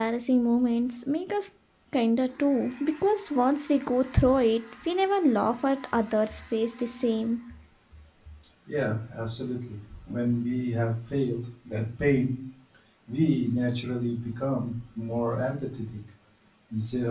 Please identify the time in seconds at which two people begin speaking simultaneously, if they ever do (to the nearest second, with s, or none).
none